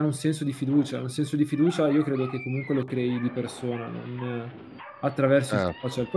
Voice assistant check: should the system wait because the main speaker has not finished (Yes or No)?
No